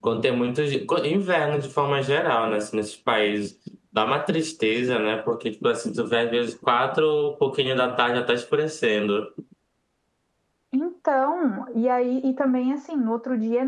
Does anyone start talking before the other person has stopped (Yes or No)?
No